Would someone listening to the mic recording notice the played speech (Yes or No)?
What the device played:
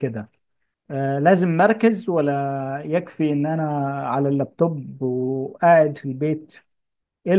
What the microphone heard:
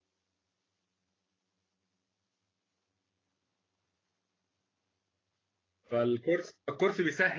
No